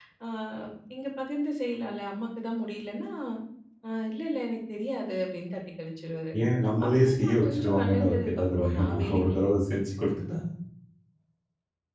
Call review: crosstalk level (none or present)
present